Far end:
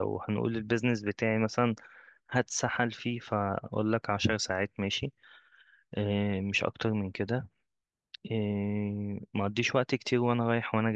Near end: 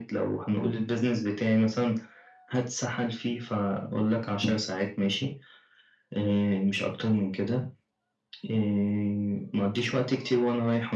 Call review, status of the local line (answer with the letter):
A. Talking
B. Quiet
B